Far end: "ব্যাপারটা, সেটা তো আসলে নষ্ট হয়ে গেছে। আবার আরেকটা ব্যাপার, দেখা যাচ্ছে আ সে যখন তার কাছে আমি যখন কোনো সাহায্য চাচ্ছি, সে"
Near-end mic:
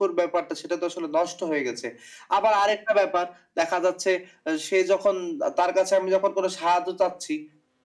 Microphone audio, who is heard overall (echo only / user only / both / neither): echo only